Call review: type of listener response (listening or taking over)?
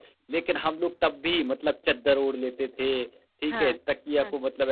listening